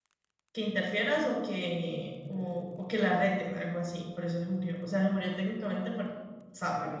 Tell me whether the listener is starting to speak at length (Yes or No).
Yes